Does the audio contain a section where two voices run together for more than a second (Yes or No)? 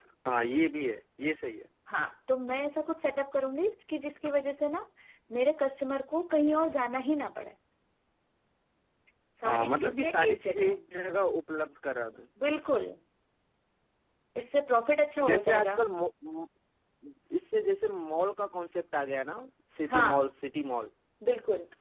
Yes